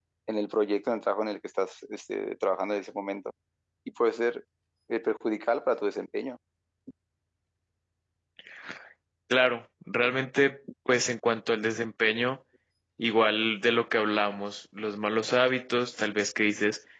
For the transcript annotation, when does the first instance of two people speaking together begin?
none

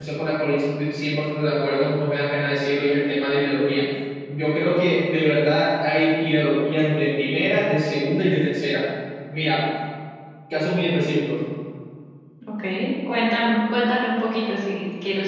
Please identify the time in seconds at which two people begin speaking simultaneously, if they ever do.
none

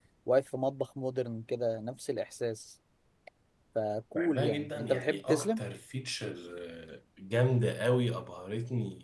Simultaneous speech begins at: 4.1 s

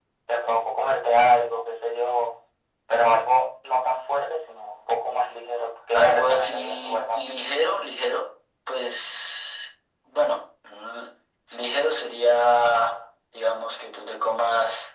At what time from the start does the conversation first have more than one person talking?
5.9 s

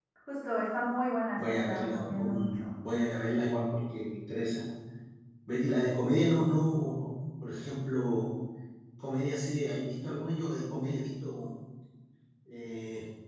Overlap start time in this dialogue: 1.4 s

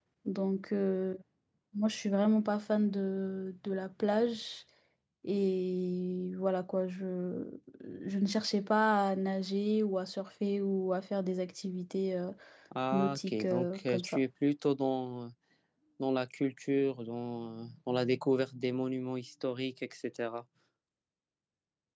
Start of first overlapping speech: 12.9 s

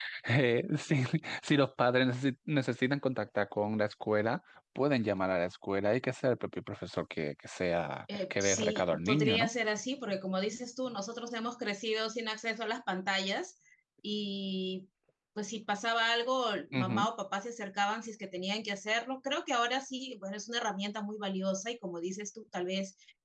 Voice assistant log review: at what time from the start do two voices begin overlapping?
8.1 s

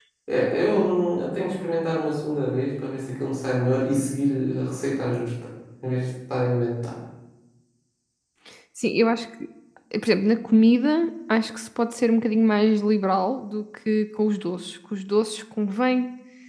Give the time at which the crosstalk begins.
none

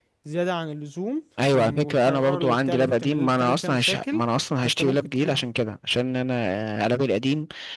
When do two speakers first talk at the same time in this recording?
1.4 s

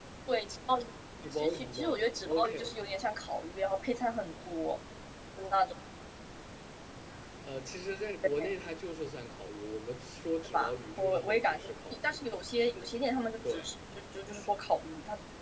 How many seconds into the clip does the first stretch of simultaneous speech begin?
1.3 s

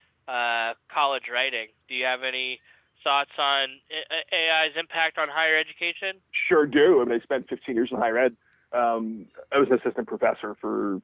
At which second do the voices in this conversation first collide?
none

